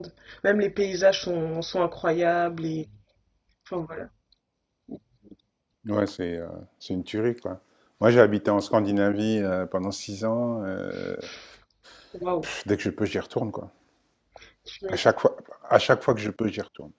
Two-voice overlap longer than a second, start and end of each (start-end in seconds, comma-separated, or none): none